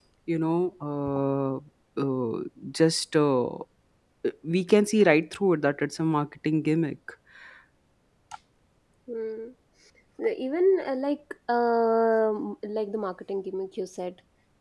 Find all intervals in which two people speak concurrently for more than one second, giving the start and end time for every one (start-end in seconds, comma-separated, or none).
none